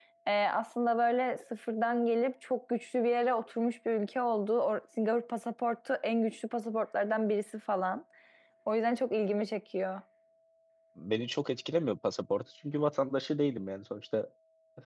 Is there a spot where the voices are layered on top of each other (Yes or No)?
No